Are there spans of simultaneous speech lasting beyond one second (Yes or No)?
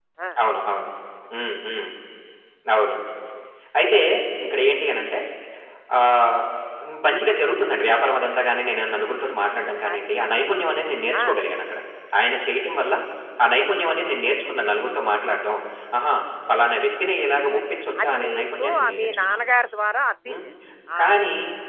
Yes